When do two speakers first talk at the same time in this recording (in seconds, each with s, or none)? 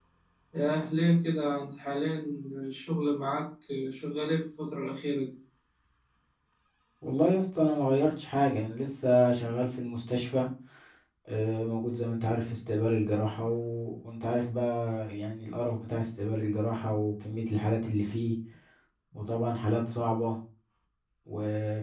none